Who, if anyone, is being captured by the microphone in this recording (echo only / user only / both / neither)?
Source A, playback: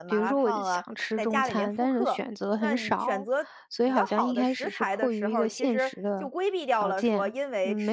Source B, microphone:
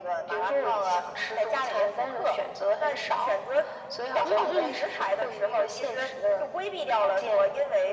both